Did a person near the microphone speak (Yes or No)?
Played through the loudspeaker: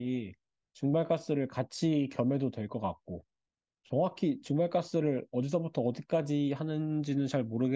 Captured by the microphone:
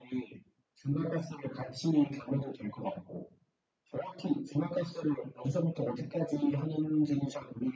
No